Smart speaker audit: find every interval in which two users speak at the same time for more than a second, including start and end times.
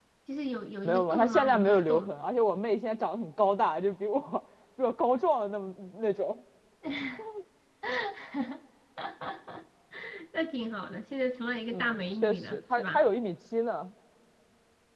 0.8-2.1, 11.7-13.0

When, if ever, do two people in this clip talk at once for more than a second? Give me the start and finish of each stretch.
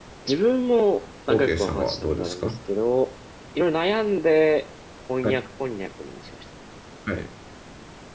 1.3-2.5

